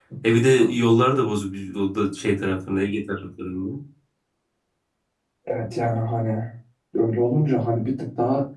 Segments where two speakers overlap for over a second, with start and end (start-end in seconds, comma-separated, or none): none